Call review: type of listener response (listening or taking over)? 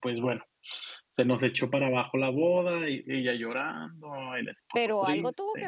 taking over